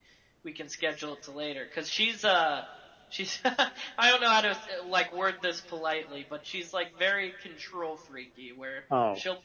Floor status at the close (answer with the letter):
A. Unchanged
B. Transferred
A